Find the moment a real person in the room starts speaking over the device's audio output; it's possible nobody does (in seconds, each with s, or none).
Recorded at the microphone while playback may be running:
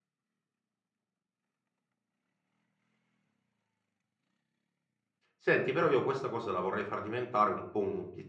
5.4 s